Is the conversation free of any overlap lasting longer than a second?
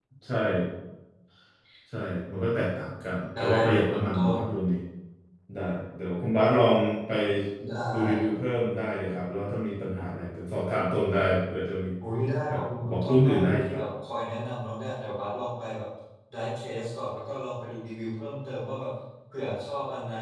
No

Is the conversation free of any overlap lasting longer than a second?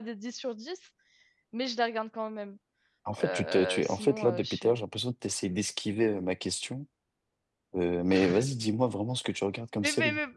No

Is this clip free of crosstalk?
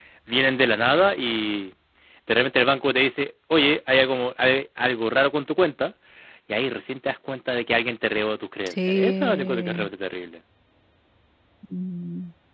No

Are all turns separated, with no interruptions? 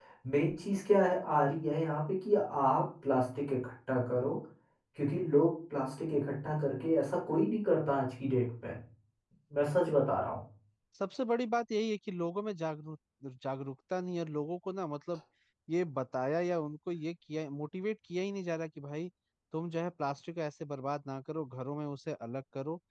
Yes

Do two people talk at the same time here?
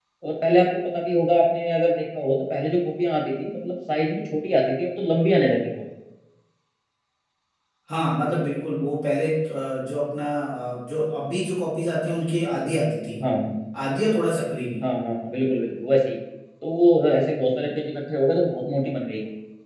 No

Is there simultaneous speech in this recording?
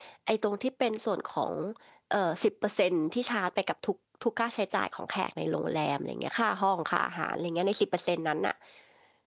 No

